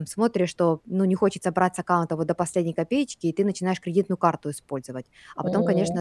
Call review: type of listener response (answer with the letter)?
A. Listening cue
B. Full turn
A